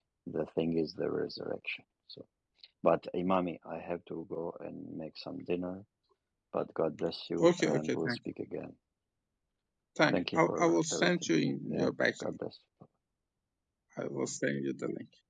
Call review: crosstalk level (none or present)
present